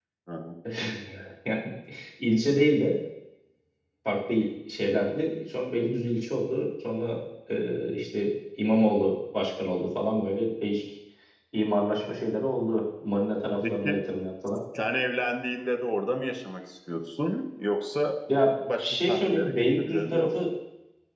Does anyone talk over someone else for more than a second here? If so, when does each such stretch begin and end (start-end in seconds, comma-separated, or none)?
18.8-20.3